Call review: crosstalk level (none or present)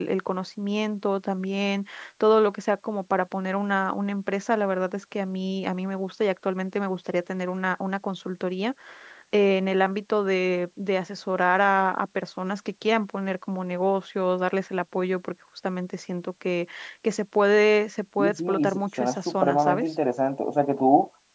present